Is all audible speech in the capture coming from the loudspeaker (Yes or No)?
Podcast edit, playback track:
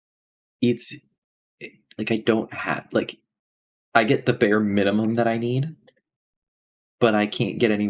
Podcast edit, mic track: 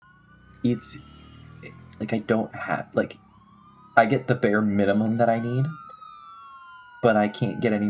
Yes